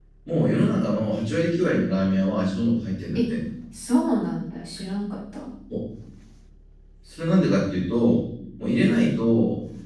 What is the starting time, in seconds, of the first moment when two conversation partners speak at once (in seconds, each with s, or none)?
none